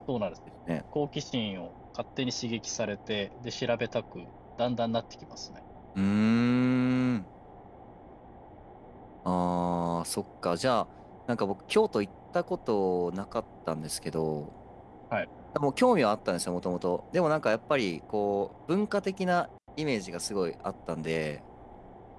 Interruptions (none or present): none